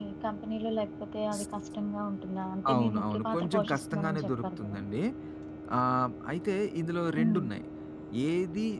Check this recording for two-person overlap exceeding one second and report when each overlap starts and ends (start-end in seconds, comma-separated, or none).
2.7-4.8